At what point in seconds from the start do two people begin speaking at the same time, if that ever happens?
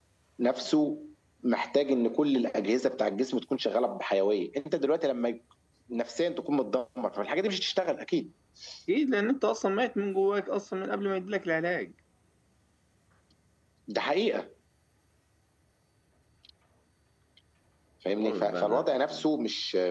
18 s

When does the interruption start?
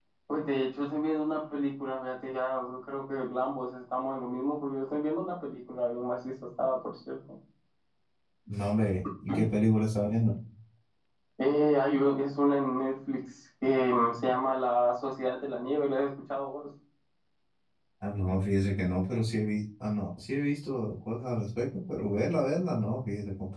none

